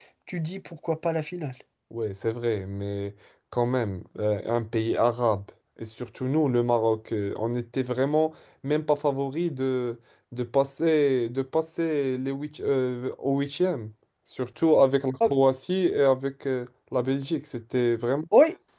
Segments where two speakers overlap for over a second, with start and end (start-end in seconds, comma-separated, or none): none